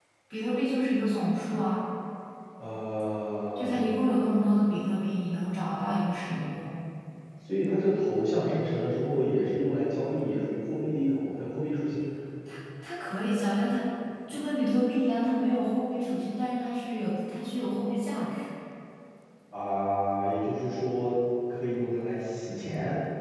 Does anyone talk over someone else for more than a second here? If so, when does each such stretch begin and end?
none

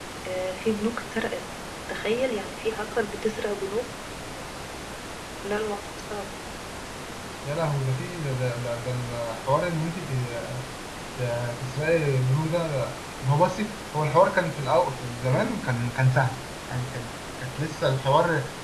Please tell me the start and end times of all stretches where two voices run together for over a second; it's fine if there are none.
none

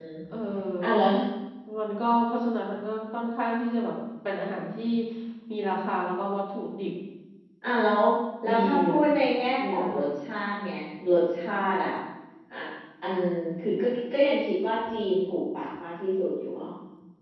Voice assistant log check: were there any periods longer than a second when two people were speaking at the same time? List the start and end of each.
none

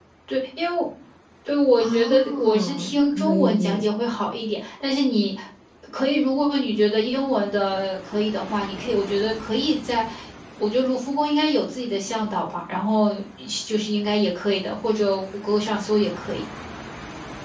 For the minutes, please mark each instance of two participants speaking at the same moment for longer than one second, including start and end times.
1.8-3.9

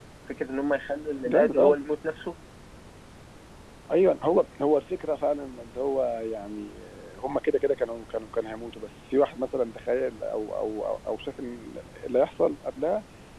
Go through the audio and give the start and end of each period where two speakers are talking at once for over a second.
none

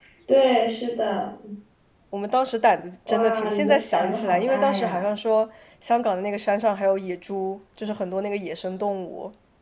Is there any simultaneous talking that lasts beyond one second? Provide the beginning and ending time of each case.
3.1-5.0

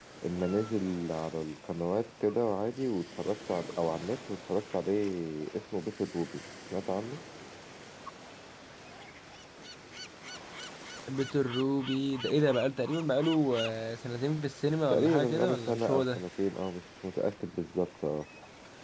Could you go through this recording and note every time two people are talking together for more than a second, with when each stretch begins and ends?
14.9-16.2

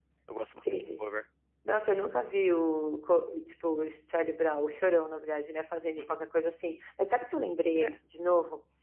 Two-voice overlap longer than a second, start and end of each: none

